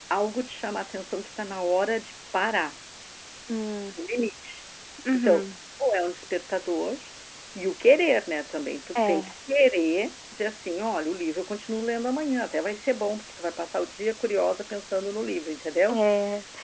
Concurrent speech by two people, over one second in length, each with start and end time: none

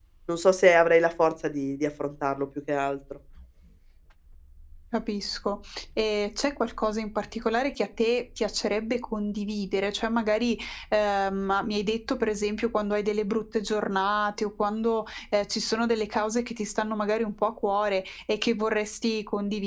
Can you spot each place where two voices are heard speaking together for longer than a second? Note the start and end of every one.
none

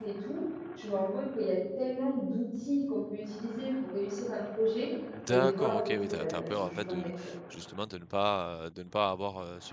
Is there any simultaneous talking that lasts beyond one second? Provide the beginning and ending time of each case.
5.3-7.1

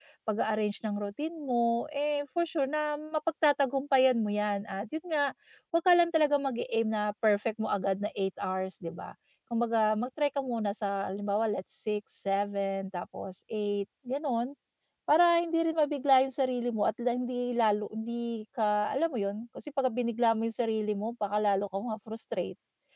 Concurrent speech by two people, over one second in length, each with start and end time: none

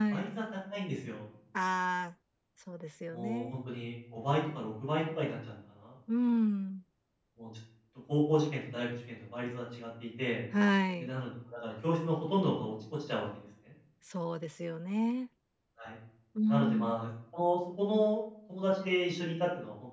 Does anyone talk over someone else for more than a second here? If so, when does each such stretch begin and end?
none

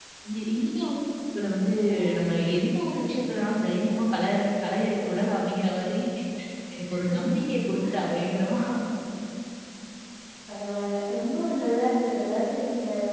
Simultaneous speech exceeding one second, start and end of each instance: none

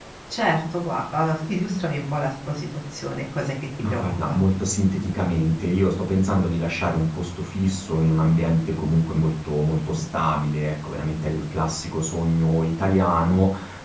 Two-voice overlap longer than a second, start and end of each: none

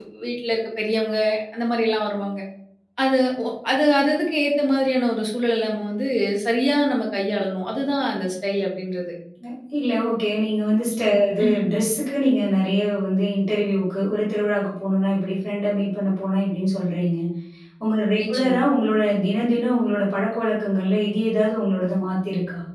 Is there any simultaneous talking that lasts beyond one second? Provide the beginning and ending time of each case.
none

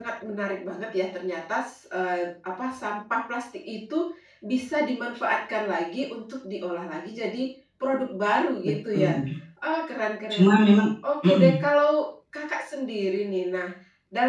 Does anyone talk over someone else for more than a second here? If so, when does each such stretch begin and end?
none

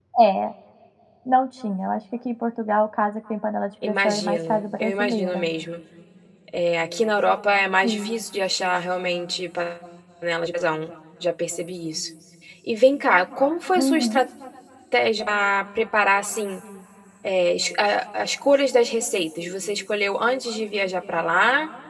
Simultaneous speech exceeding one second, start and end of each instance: 3.8-5.5

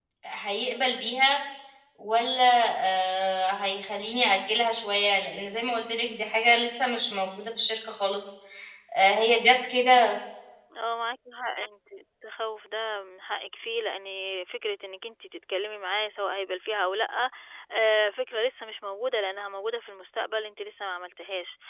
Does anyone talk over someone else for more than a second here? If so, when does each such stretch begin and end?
none

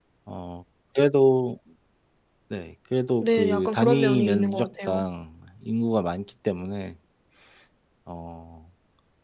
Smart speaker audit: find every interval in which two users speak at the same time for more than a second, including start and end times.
3.2-5.0

